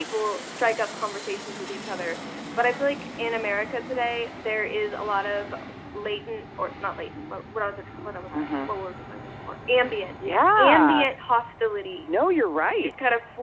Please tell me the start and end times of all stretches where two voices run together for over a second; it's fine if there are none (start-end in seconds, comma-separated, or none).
none